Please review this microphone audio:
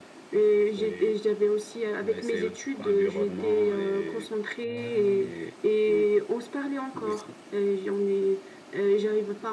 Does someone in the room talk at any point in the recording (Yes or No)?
Yes